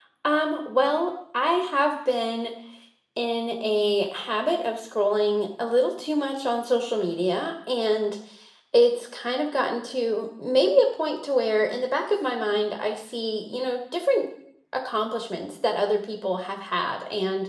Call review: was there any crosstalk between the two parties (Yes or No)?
No